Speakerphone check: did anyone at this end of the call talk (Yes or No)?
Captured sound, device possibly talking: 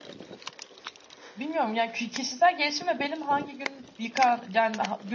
Yes